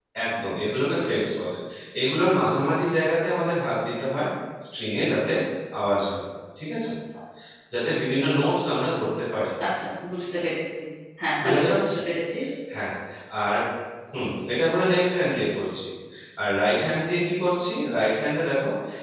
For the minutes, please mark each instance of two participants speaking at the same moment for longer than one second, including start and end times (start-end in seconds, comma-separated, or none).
none